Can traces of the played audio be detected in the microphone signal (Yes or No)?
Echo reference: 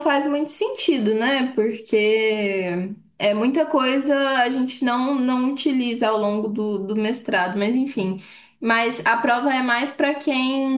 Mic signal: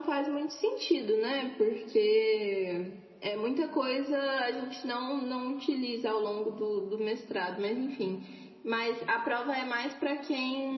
Yes